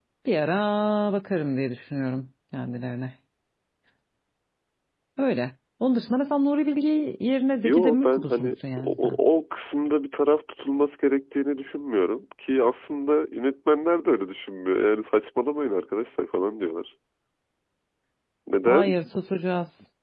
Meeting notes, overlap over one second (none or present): present